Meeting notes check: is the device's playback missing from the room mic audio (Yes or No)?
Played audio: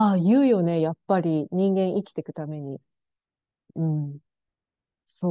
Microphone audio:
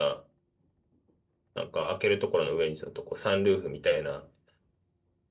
Yes